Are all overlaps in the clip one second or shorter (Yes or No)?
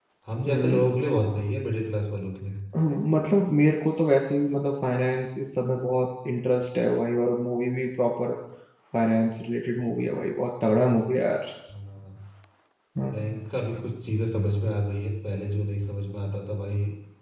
Yes